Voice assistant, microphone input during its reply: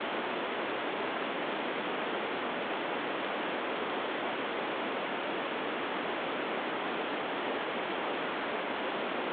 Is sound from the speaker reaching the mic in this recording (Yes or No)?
No